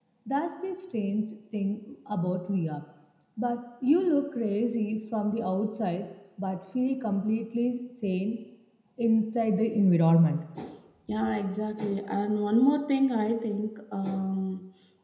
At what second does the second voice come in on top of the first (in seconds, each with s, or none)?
none